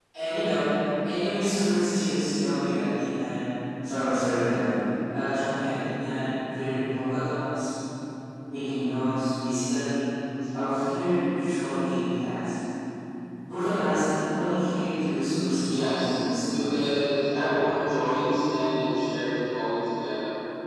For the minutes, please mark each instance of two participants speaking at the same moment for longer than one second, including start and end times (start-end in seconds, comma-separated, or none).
15.6-16.8